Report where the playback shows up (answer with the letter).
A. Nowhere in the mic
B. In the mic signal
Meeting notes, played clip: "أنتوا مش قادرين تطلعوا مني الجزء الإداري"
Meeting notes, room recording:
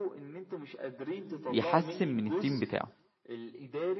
B